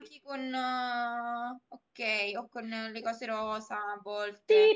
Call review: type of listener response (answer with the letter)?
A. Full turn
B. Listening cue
A